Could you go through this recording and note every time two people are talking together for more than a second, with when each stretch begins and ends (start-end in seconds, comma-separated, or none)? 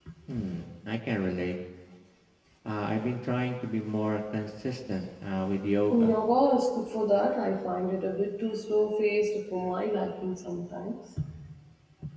none